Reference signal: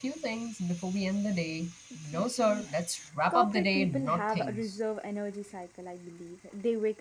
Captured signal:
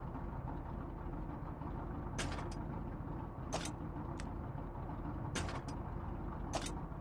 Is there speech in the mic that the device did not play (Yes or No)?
No